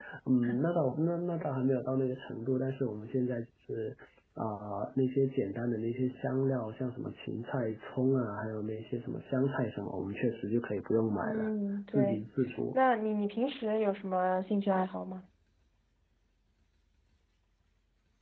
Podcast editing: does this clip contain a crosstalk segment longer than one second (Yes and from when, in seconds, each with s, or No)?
No